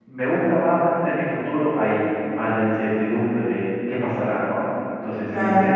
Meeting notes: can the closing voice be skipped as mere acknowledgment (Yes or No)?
Yes